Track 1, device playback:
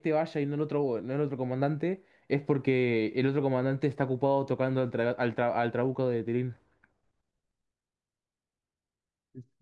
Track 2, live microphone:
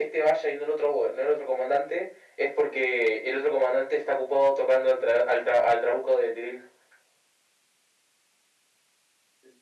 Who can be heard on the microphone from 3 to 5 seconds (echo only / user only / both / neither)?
echo only